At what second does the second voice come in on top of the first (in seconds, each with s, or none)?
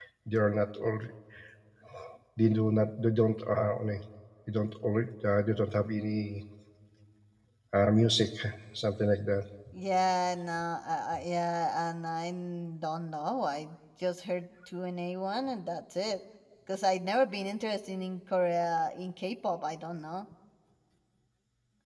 none